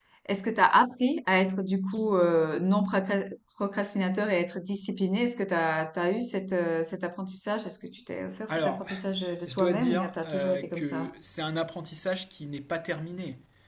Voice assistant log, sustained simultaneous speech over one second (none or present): present